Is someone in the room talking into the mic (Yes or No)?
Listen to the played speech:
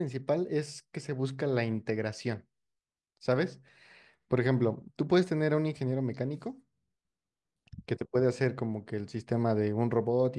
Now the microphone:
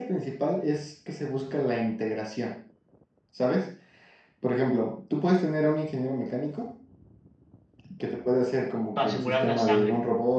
Yes